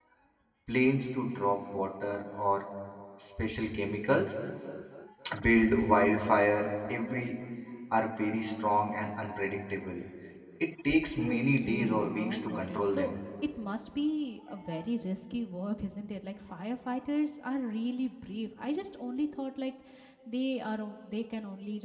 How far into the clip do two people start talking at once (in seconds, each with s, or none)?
11.2 s